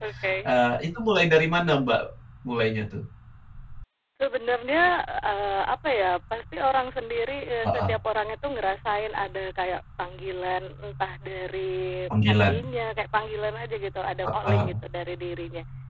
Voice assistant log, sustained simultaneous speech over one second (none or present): none